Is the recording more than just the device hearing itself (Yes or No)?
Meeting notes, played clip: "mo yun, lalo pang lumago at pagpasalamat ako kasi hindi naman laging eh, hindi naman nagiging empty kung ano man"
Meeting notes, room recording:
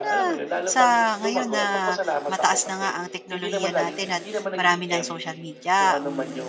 Yes